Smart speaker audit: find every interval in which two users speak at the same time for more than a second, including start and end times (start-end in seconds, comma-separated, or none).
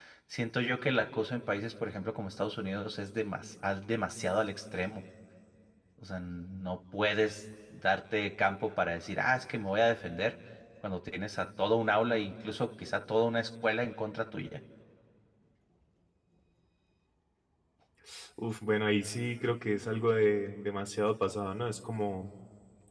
none